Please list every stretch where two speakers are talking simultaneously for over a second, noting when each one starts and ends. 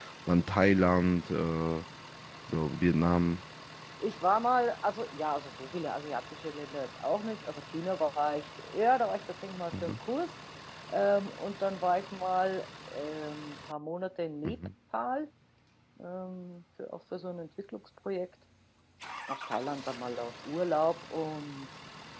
none

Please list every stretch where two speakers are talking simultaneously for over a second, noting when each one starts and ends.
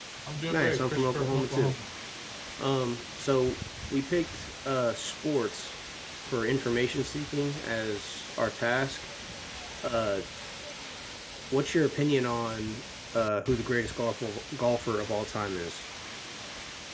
0.5-1.8

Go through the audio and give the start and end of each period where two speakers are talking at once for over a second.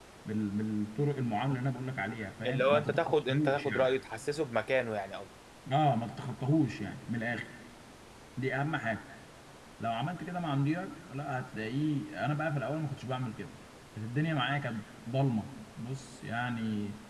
2.5-3.9

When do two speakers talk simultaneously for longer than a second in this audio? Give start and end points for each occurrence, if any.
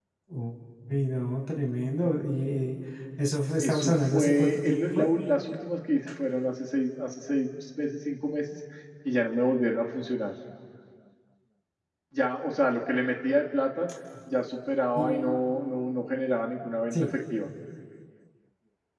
3.6-5.1

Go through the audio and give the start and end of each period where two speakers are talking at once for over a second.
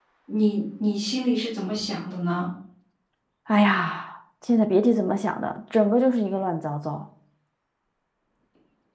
none

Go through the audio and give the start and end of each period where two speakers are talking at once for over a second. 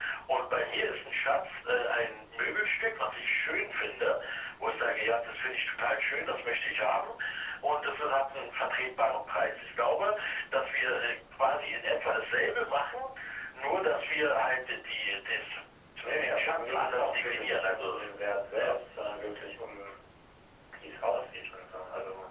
16.2-18.0

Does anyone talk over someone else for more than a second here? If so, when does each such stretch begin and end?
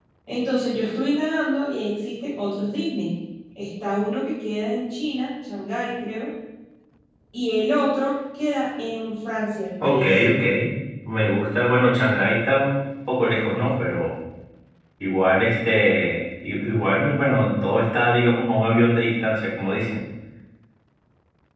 none

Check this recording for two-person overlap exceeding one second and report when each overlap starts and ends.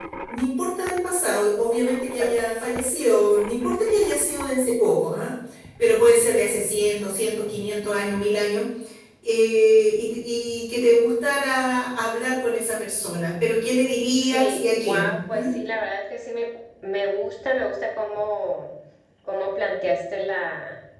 14.2-15.4

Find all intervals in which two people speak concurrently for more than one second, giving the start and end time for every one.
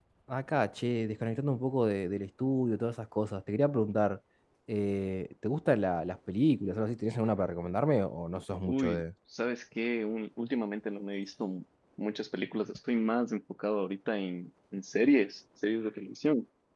none

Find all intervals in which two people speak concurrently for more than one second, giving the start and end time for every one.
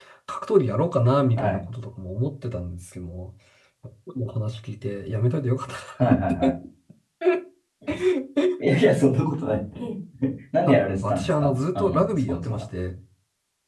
10.7-12.6

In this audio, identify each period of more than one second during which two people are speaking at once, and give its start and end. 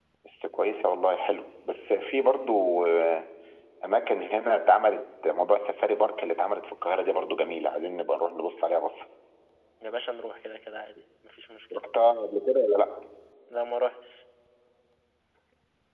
none

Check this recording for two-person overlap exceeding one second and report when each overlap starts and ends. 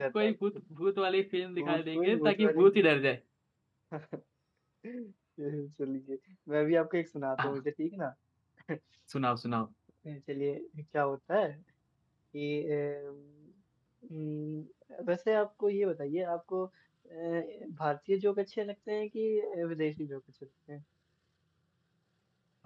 1.6-2.9

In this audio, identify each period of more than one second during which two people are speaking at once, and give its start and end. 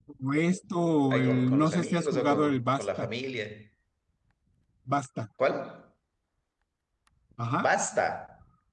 1.1-3.0

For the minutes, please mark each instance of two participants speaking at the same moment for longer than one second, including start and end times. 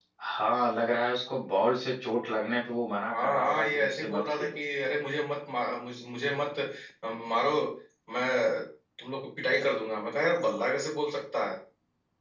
3.1-4.6

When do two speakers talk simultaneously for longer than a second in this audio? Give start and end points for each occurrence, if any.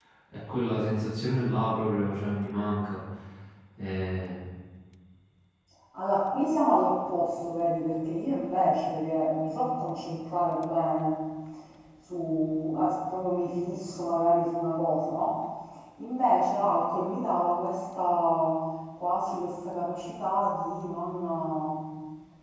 none

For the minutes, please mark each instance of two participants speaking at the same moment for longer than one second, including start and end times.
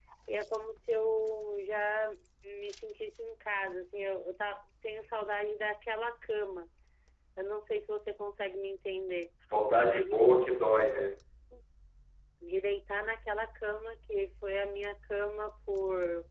none

